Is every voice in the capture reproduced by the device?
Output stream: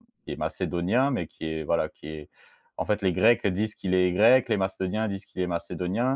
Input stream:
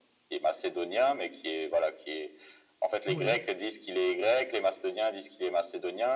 No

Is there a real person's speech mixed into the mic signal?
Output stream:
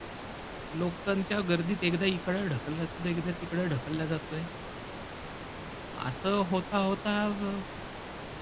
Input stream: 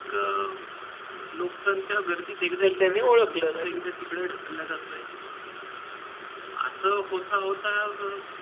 Yes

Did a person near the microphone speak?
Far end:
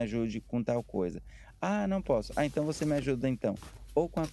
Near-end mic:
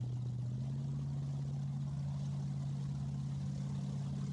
No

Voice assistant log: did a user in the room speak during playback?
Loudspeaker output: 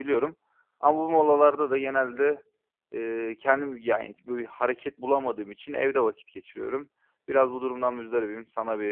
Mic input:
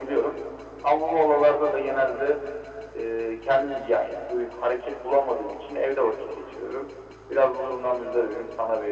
No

